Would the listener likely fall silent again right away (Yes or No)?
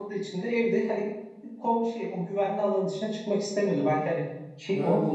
No